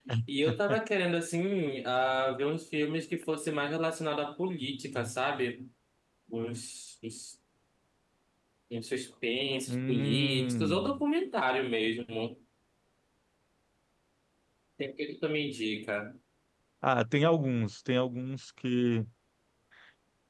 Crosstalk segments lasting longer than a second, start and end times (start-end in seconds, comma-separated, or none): 9.7-11.0